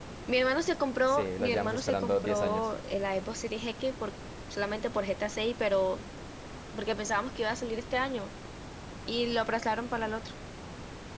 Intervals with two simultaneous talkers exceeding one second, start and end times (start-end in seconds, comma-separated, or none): 1.1-2.7